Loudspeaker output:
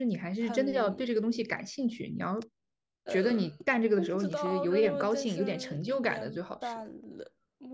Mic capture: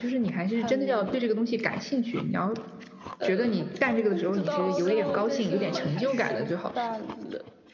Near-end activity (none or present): present